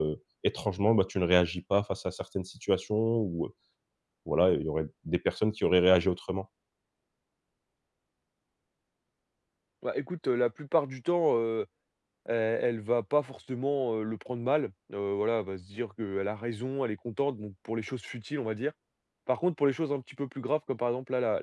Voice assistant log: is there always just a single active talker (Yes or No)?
Yes